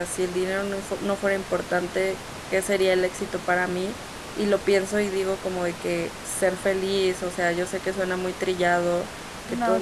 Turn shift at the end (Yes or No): No